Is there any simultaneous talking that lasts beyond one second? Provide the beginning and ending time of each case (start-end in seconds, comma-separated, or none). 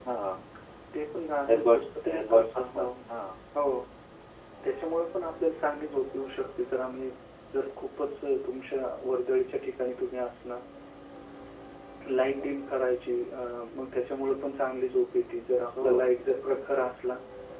1.5-2.9